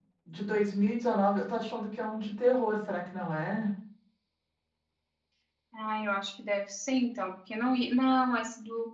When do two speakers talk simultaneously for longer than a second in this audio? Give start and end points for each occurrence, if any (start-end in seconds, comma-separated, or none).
none